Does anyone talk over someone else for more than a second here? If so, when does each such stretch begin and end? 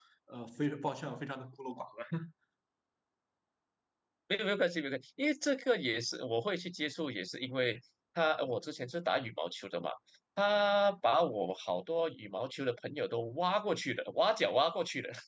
none

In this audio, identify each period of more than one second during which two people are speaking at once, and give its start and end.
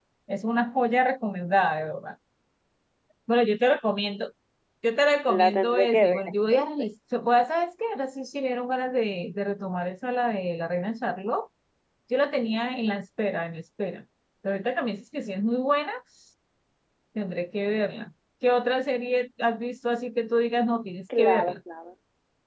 5.3-6.9

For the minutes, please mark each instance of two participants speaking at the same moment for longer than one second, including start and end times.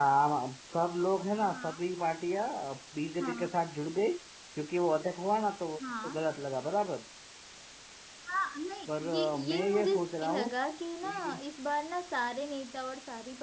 8.9-10.5

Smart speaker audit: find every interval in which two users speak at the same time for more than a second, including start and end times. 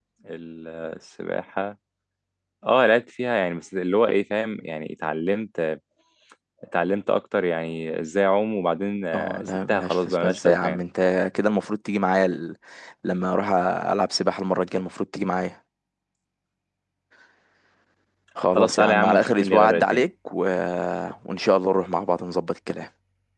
9.1-10.8, 18.6-20.1

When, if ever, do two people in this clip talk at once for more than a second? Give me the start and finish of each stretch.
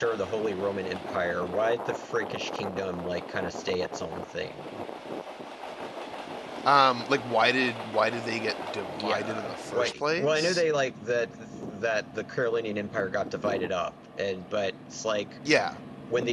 8.9-10.6

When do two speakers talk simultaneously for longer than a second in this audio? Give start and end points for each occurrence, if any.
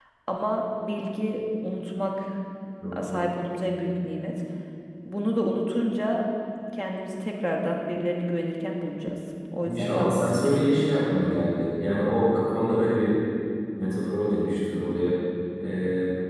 9.6-11.1

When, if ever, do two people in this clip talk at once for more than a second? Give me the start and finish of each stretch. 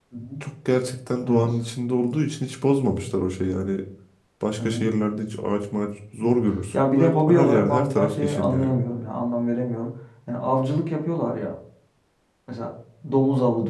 6.7-8.7

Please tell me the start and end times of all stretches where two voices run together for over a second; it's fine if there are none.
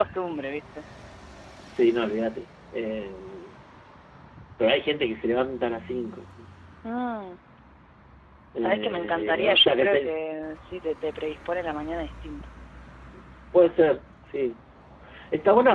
8.6-10.1

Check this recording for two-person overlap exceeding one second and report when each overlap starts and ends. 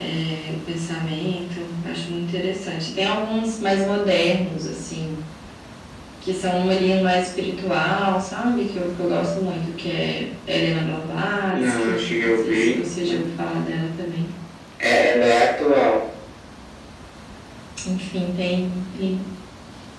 11.5-13.2

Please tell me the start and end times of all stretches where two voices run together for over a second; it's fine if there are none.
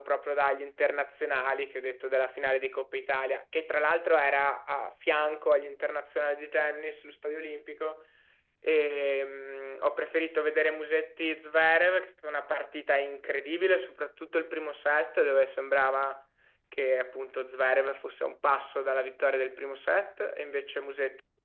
none

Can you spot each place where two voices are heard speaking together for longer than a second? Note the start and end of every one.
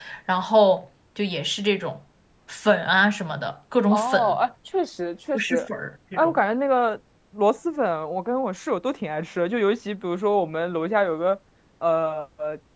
none

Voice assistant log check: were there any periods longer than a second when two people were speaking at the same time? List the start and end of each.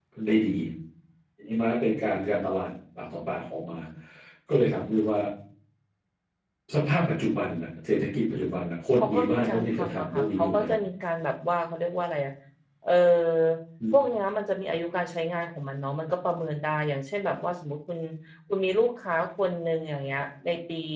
9.0-10.7

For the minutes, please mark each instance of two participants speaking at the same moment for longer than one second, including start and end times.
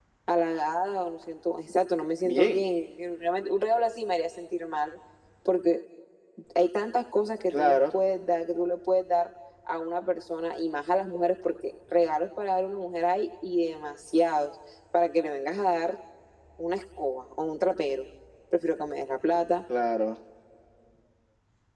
none

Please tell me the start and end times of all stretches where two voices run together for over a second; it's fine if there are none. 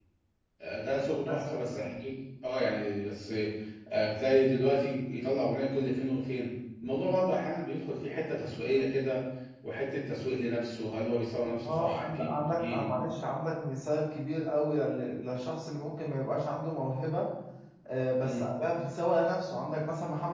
11.6-12.9

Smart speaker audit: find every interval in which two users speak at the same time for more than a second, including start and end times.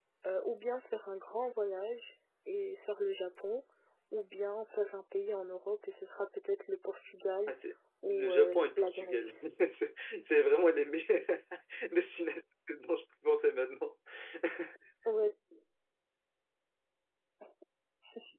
8.0-9.3

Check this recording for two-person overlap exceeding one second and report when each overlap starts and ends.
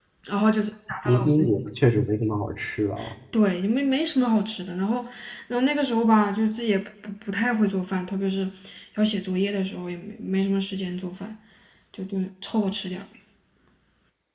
none

